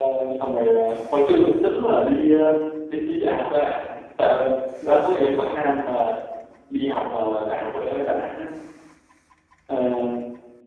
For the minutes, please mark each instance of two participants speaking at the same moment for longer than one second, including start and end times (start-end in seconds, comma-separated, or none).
none